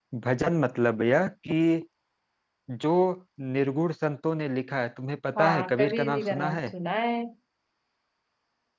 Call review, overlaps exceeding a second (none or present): present